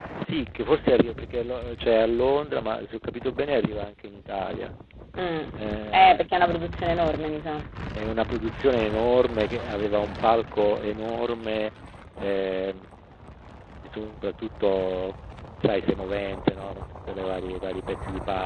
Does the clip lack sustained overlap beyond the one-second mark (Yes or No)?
Yes